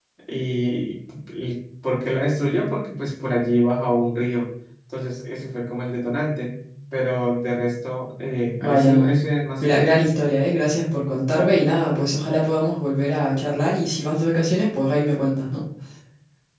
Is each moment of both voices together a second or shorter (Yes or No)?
Yes